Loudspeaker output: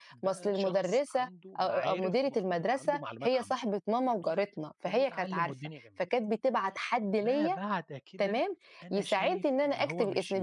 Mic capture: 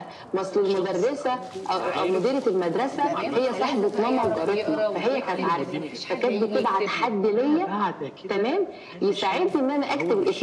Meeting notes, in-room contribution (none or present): present